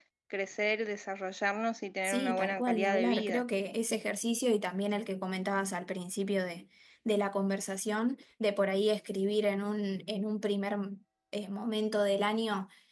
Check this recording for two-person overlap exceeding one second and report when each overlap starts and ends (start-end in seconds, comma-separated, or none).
2.0-3.4